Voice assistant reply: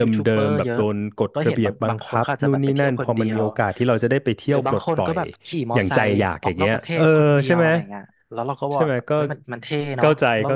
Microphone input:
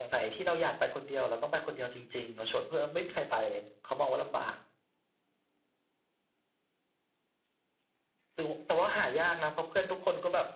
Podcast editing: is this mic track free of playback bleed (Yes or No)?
Yes